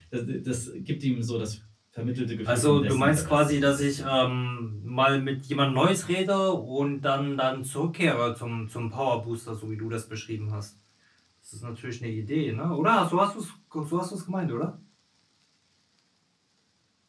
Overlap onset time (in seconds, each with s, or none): 2.5 s